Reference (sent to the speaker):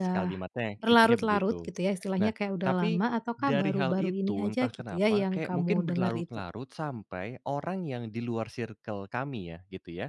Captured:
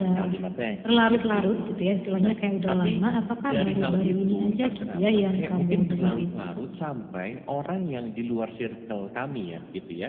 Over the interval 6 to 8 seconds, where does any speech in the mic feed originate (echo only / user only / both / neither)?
echo only